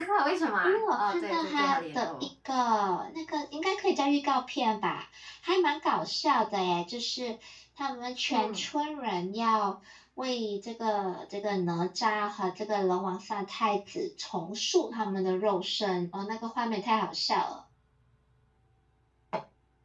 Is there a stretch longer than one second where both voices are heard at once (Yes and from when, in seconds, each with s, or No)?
Yes, from 0.6 s